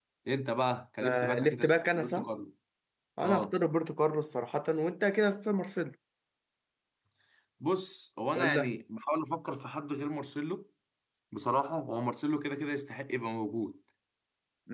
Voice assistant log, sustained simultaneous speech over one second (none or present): present